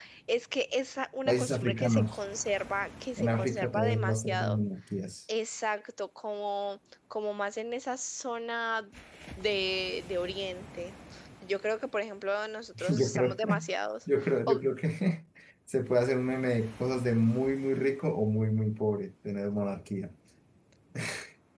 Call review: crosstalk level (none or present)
present